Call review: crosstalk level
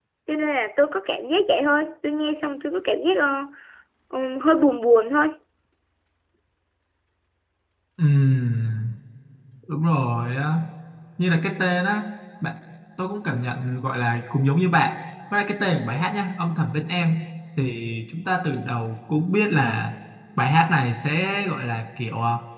none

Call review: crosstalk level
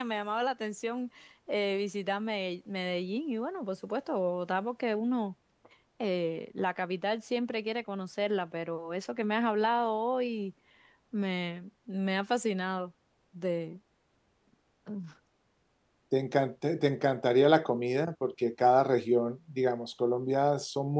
none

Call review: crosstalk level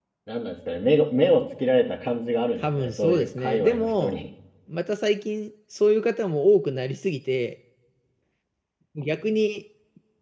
present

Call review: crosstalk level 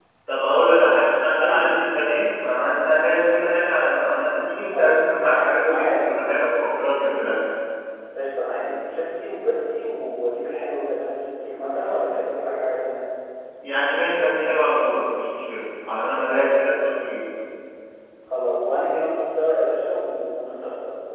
present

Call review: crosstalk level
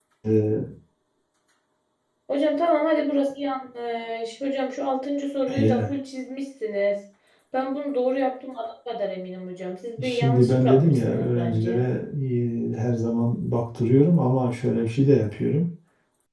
present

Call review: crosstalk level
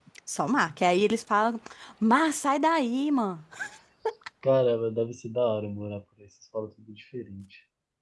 none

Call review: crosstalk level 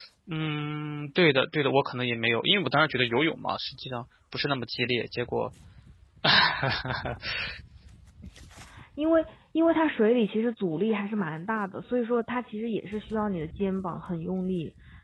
none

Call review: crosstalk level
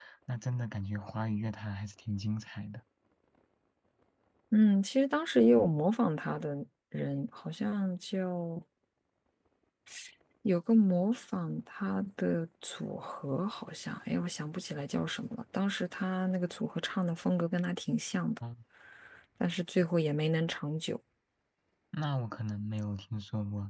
none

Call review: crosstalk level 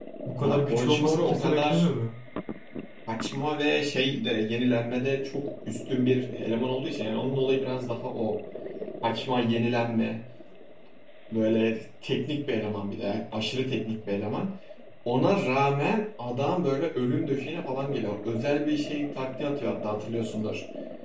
present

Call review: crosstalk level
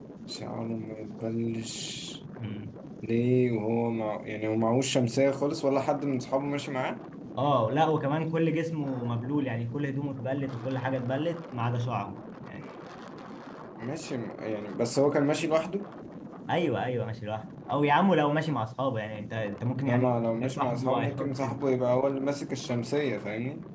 present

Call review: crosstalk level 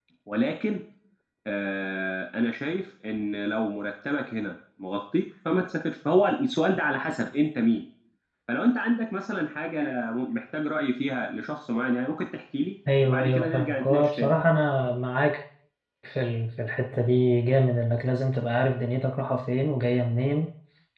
present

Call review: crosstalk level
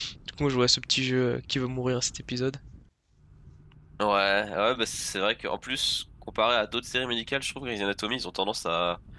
none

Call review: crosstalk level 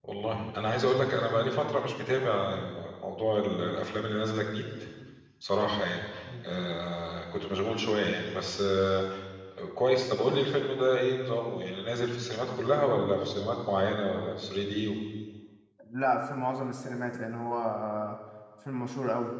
none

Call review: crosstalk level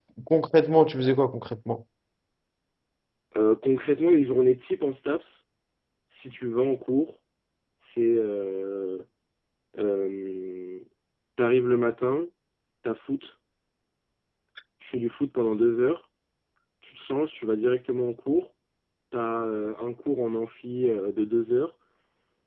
none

